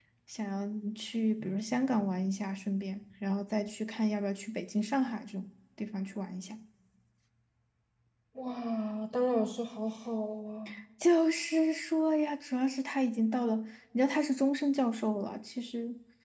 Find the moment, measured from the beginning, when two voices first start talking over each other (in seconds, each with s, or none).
none